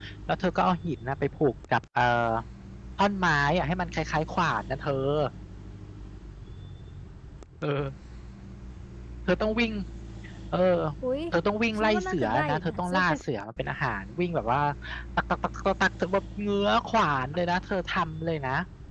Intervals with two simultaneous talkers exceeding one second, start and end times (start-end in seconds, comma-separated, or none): 11.8-13.0